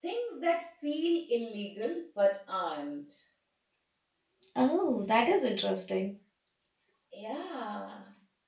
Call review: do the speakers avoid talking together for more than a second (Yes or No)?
Yes